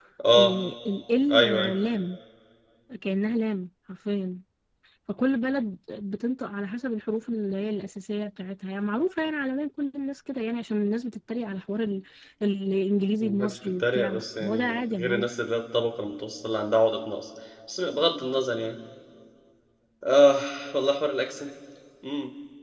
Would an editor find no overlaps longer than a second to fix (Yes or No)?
No